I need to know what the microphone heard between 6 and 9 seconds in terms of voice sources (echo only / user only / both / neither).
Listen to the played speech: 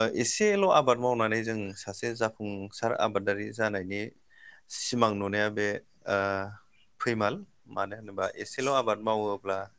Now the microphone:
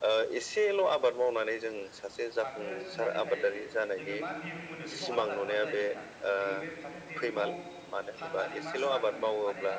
both